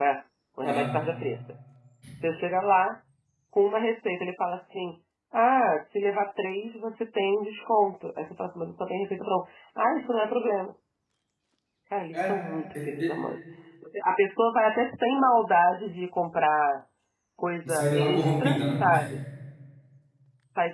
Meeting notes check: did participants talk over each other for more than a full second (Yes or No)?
Yes